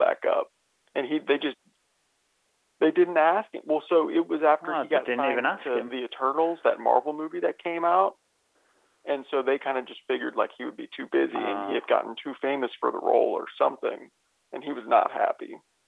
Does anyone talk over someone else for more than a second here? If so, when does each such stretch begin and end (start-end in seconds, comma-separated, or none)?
4.6-5.9